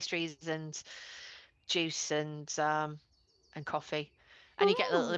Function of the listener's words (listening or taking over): listening